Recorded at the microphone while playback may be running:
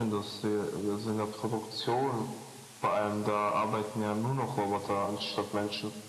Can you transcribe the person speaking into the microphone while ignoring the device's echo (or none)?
none